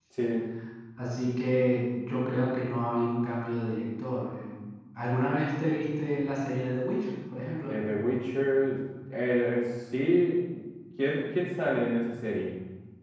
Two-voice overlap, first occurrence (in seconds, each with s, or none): none